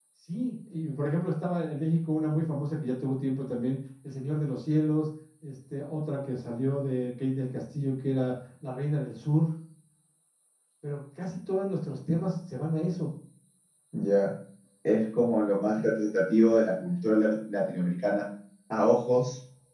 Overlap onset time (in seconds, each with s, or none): none